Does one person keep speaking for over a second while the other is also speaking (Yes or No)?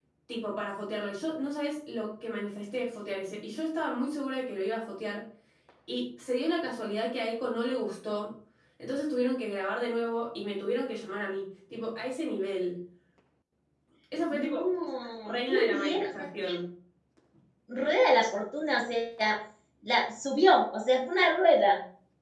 Yes